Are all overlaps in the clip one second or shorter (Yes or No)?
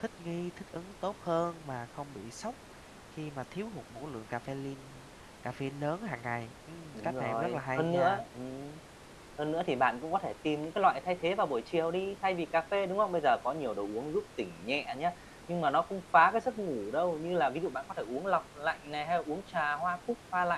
No